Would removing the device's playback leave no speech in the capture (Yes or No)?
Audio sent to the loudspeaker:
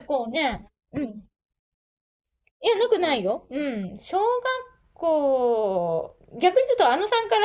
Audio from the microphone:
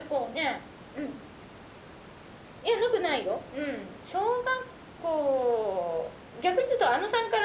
Yes